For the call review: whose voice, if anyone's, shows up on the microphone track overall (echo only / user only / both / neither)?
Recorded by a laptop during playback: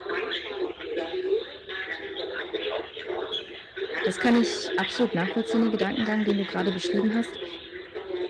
both